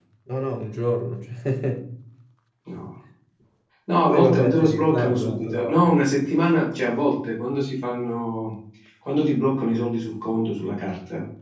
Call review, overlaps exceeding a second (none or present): present